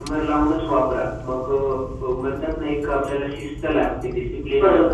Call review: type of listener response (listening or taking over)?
taking over